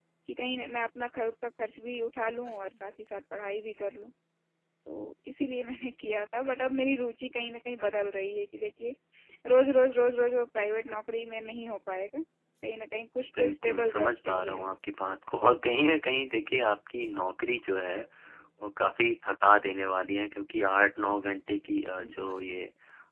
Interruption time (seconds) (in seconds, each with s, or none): 13.4 s